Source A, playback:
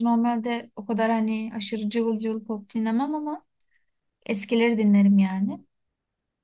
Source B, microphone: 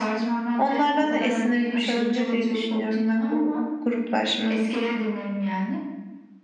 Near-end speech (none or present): present